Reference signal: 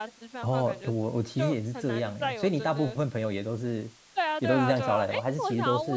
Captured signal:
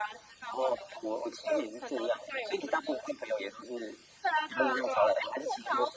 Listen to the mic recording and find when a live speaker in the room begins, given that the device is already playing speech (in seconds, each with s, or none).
none